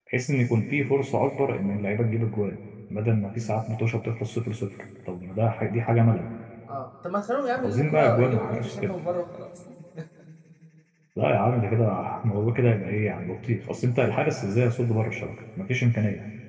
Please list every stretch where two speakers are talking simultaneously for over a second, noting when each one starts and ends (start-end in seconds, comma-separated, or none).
7.6-9.0